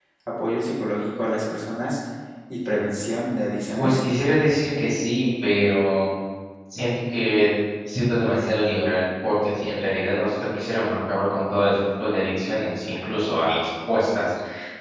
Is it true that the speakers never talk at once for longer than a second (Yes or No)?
Yes